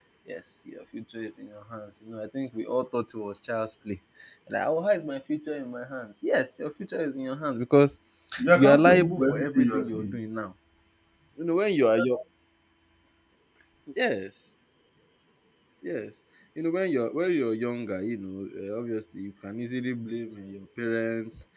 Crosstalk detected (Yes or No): Yes